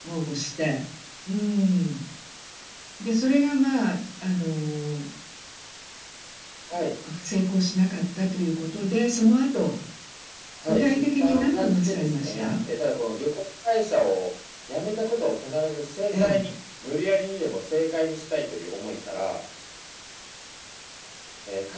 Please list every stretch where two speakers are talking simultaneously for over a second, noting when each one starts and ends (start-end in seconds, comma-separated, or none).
10.7-12.4